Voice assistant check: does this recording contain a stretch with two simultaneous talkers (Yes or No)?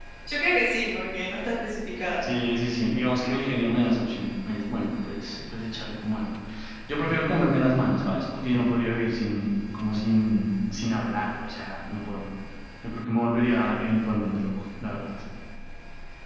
No